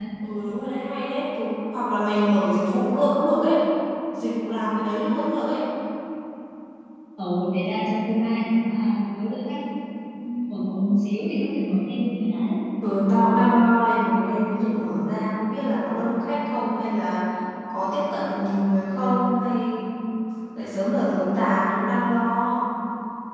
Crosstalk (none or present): none